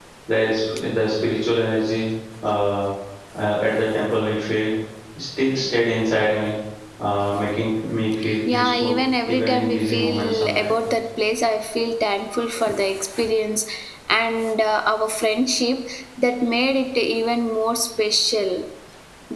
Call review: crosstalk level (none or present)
present